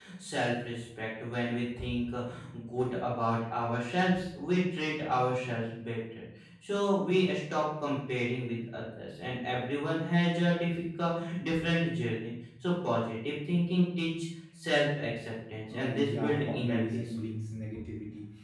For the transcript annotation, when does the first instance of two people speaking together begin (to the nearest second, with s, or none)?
16 s